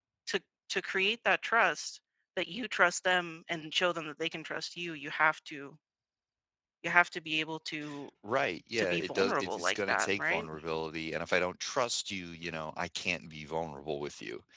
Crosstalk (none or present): present